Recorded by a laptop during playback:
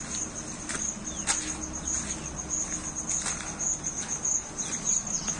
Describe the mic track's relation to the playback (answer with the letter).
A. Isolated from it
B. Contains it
A